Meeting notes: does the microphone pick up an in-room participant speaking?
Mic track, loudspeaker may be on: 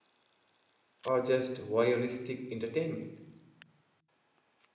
Yes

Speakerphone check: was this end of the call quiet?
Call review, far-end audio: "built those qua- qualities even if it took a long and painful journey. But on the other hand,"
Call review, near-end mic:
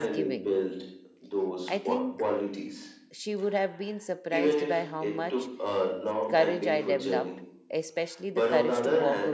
No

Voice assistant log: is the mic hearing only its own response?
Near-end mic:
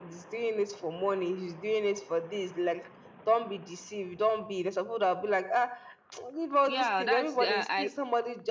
No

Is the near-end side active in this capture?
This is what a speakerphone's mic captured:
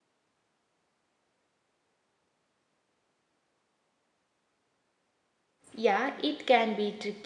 Yes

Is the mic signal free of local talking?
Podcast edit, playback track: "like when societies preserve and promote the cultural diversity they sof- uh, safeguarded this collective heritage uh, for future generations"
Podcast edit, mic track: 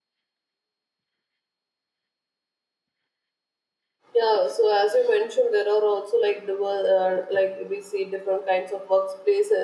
No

